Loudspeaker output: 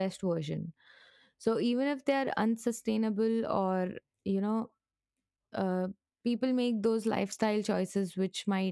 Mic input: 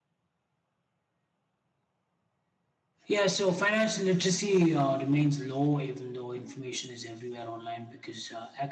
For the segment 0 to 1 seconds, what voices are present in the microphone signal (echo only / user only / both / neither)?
neither